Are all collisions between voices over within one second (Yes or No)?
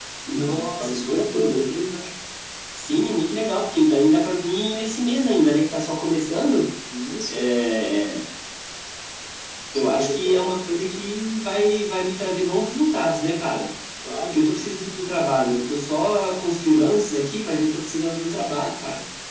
No